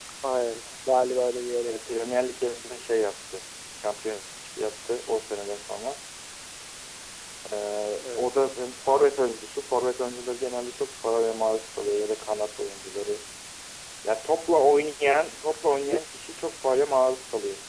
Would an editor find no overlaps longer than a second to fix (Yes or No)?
Yes